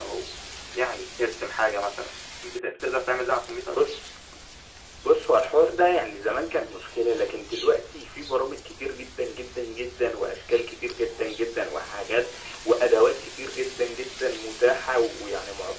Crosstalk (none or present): none